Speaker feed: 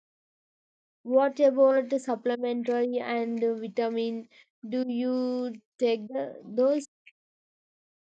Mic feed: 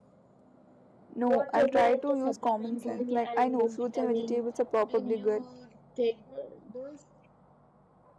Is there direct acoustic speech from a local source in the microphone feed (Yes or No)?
Yes